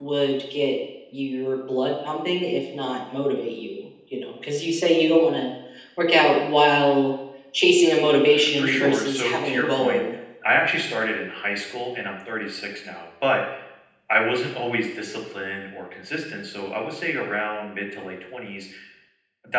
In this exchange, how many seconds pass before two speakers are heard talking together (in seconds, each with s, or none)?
8.3 s